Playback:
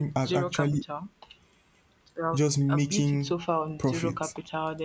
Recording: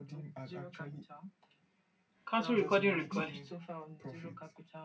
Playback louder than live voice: No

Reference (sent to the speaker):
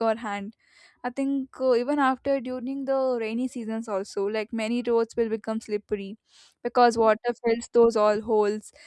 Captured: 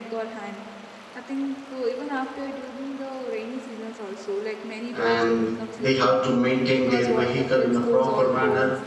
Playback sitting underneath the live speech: Yes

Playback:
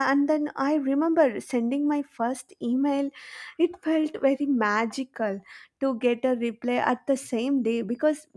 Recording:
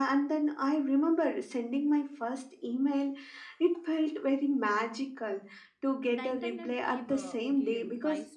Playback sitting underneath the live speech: No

